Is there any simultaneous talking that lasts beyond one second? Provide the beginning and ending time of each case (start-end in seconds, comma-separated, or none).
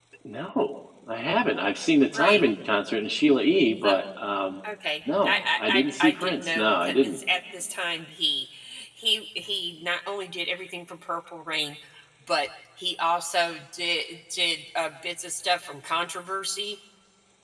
5.2-7.2